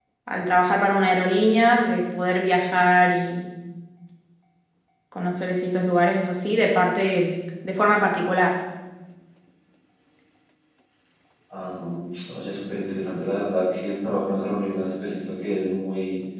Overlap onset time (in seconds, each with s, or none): none